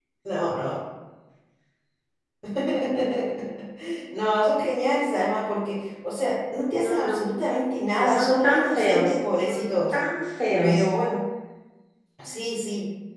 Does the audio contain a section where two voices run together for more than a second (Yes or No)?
Yes